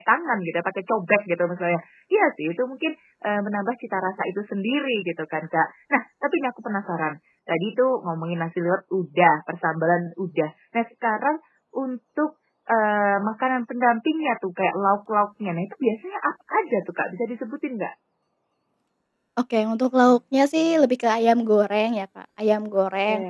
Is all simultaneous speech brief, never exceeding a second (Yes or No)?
Yes